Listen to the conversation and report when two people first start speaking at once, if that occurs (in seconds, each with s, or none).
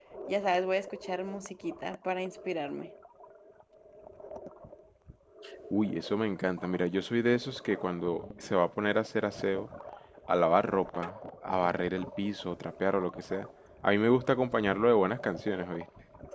none